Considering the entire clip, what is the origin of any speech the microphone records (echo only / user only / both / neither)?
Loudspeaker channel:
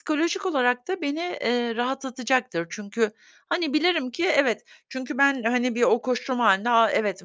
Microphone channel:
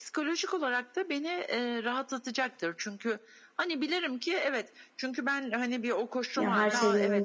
both